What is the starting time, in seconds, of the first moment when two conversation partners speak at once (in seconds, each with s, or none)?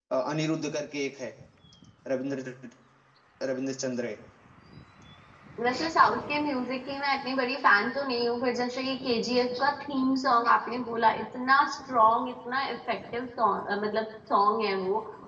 none